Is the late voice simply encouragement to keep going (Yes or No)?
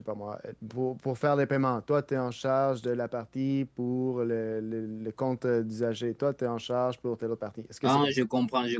No